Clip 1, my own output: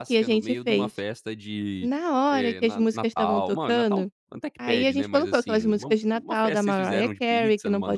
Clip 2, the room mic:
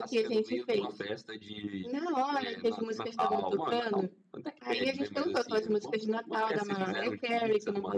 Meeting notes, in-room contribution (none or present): none